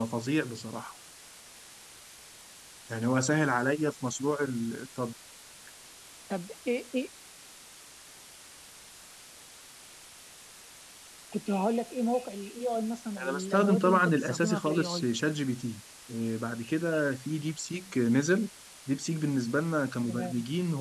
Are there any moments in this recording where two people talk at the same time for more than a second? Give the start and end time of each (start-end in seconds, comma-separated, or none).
13.2-15.1